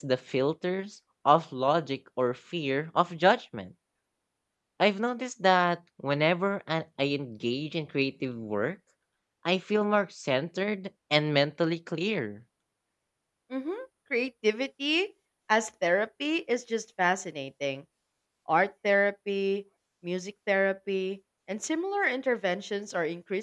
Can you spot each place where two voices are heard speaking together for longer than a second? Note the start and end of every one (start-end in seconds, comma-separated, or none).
none